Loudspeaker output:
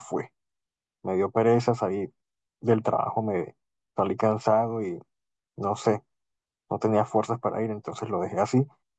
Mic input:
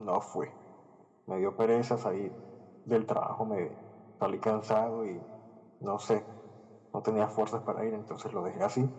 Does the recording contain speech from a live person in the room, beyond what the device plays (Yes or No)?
No